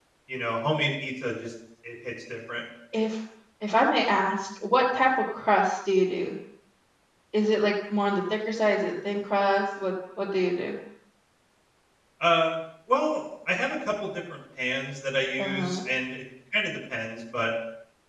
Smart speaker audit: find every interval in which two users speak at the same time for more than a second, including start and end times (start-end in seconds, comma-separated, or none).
none